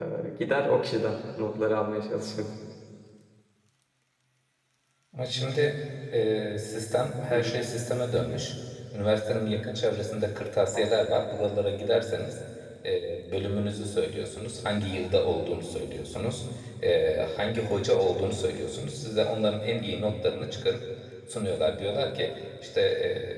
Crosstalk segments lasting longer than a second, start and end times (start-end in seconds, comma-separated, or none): none